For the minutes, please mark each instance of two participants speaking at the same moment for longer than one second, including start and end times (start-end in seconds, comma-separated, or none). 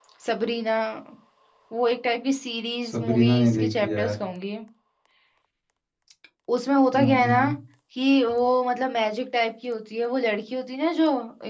2.9-4.2